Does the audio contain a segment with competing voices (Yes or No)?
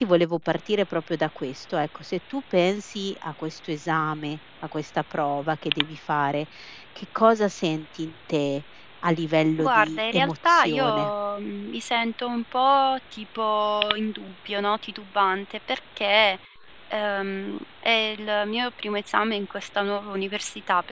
Yes